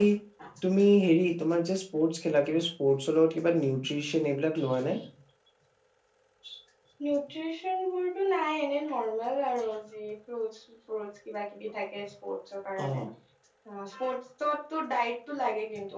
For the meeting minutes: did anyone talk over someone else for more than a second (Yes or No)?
No